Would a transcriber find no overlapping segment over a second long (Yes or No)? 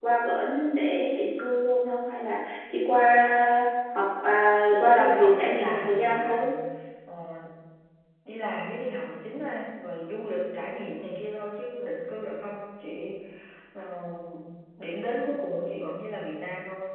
No